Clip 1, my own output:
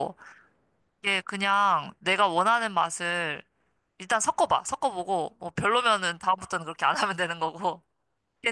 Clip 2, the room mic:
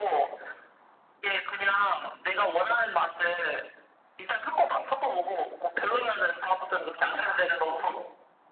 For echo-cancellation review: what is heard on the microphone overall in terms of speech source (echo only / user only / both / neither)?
echo only